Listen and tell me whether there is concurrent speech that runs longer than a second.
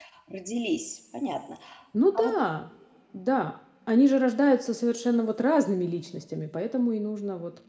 No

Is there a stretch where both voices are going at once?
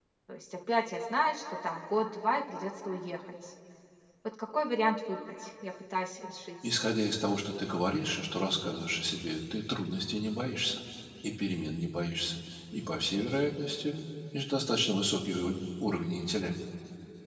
No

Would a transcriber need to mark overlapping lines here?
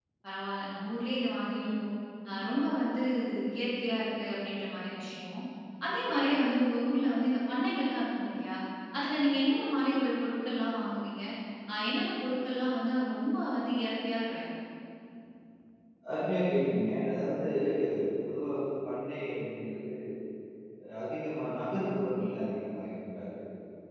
No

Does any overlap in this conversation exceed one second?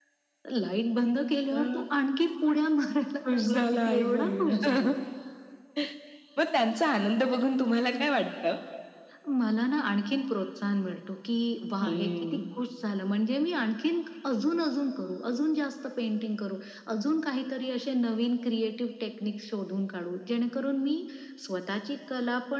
Yes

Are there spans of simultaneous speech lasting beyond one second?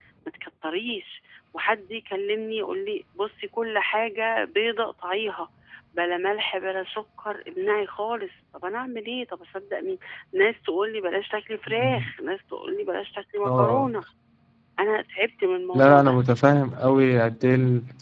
No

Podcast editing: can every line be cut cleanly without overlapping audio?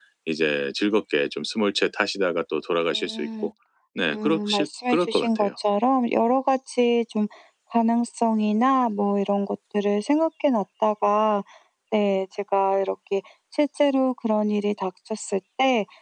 No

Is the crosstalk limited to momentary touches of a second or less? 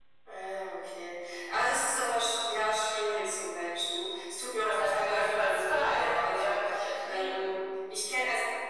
No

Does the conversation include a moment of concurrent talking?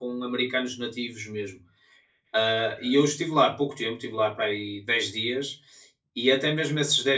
No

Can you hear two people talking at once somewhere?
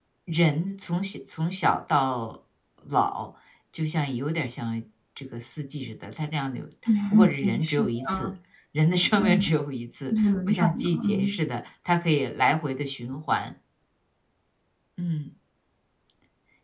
Yes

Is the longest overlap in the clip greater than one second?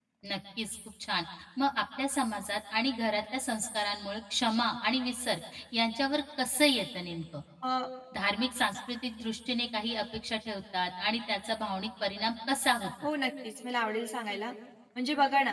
No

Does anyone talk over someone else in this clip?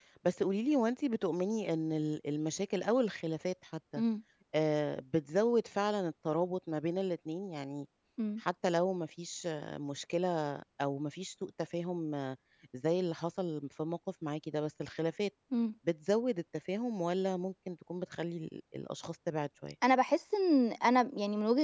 No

